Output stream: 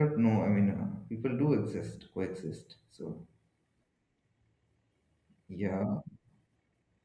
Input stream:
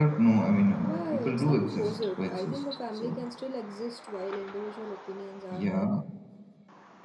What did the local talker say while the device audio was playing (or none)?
Why? It's not opposite. I think a family can still exist while individual opinions are there.